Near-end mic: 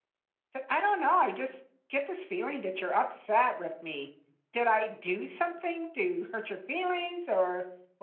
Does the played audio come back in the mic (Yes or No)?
No